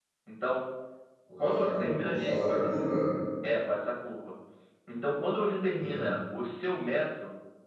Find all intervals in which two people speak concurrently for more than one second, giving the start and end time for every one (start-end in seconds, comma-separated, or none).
1.4-2.7